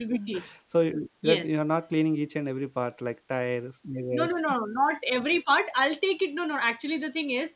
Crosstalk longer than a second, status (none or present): none